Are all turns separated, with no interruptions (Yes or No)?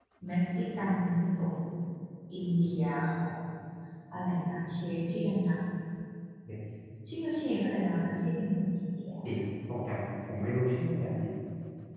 Yes